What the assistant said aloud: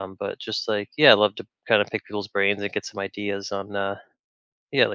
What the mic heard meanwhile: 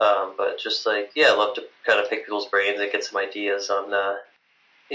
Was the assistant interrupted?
No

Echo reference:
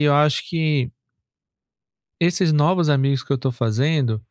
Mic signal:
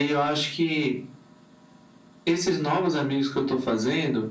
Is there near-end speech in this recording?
No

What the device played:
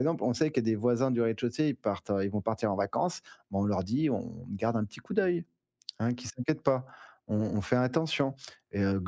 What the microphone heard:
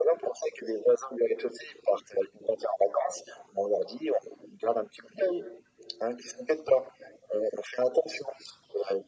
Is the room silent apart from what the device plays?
Yes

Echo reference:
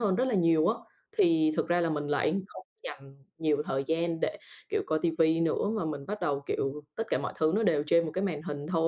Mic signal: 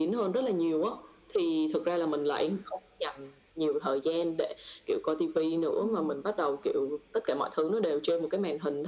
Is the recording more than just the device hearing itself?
Yes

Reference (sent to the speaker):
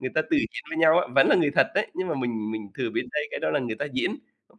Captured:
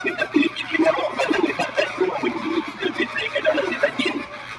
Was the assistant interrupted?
No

